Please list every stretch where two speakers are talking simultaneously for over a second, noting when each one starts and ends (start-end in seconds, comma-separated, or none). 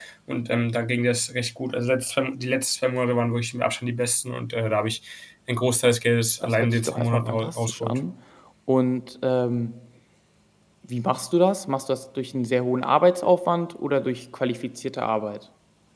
6.4-8.0